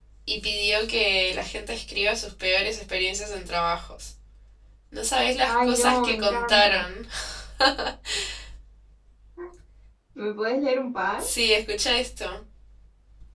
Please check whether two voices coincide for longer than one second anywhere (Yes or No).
Yes